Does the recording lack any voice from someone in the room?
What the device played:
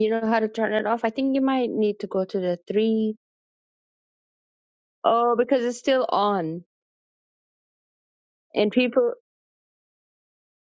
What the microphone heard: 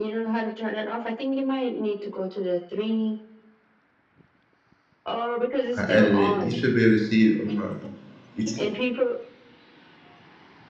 No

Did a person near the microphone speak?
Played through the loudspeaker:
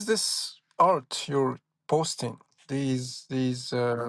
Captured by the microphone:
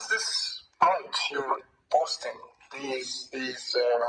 No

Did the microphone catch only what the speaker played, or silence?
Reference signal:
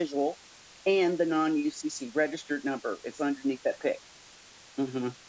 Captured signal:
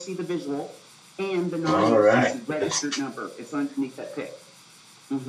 No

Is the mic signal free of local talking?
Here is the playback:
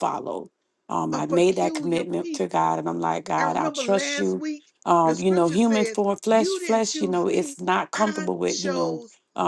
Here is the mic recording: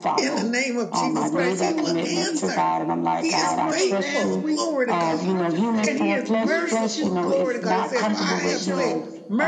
No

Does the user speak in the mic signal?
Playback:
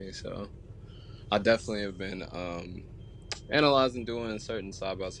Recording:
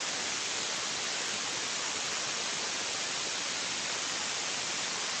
No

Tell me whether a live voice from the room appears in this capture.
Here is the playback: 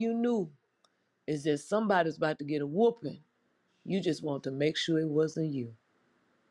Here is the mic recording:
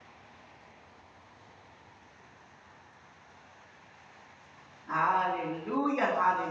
Yes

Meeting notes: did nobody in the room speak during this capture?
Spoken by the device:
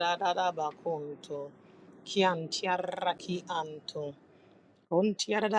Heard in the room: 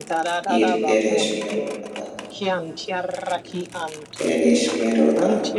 No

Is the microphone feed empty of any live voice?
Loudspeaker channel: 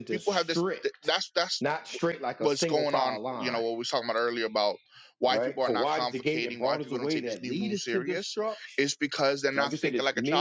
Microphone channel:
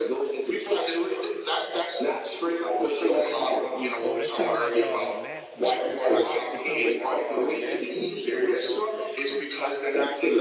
No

